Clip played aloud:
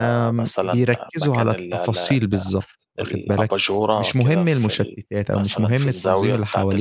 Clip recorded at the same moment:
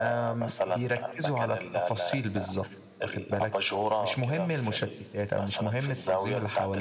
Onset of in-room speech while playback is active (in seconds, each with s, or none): none